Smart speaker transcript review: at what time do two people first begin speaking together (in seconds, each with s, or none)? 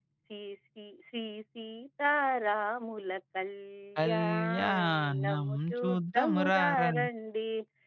4.0 s